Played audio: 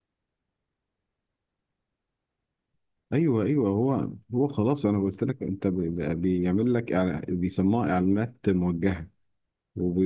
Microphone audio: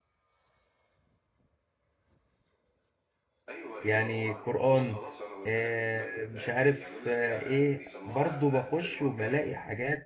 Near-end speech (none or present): present